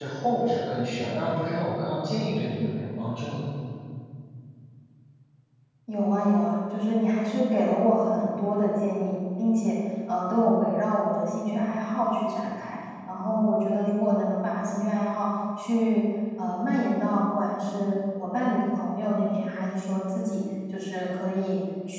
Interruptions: none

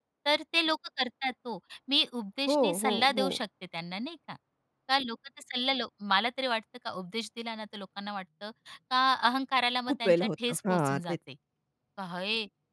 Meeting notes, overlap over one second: present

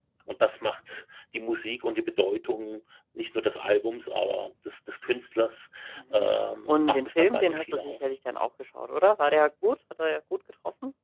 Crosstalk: present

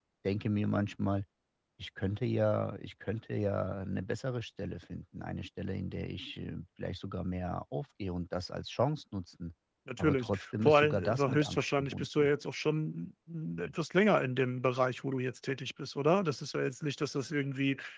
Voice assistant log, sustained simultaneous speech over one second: present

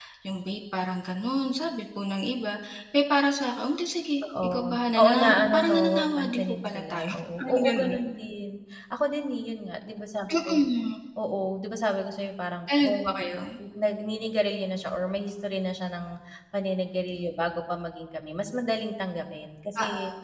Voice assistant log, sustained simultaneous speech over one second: present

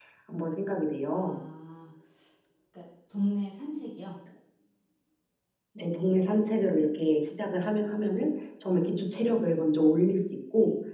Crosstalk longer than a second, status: none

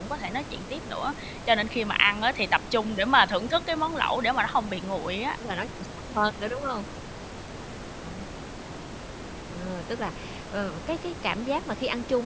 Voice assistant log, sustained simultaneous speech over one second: none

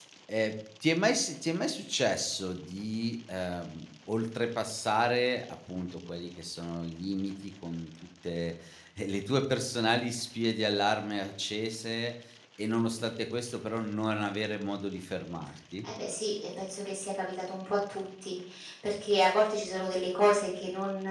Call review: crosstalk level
none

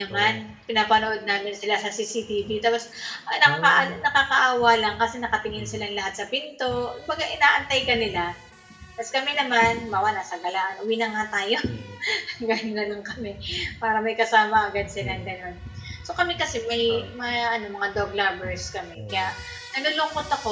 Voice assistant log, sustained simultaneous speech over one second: none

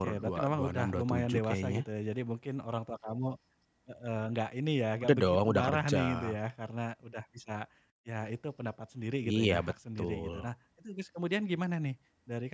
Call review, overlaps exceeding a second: present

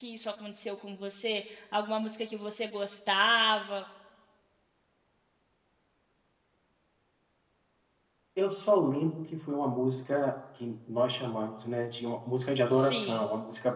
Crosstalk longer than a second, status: none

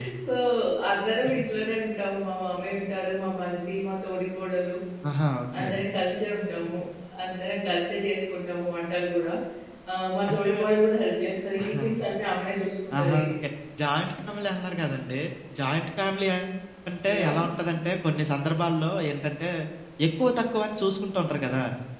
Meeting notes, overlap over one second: none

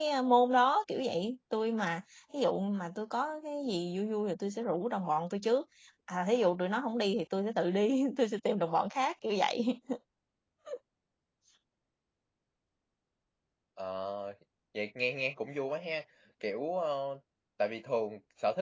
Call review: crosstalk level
none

